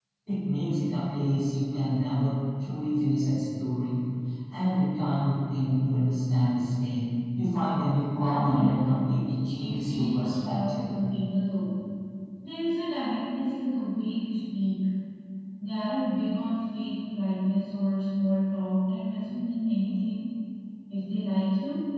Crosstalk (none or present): present